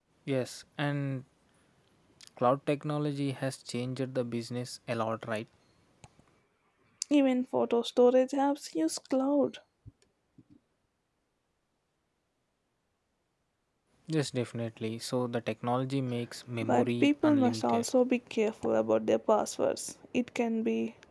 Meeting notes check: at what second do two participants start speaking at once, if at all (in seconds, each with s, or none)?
16.6 s